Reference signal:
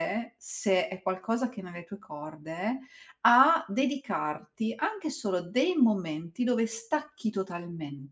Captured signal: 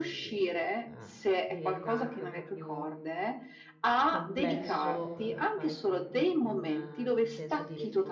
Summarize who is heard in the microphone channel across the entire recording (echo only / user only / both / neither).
both